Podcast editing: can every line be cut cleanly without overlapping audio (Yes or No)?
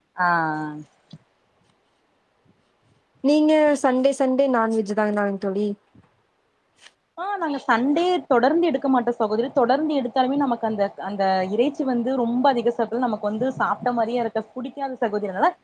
Yes